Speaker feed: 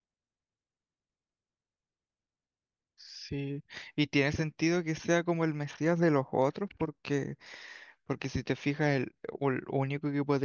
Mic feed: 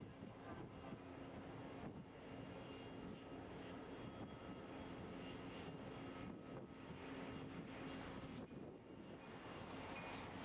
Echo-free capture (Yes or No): Yes